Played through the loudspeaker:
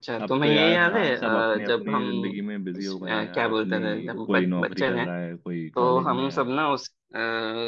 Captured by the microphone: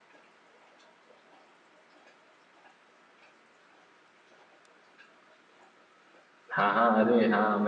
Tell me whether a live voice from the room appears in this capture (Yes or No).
Yes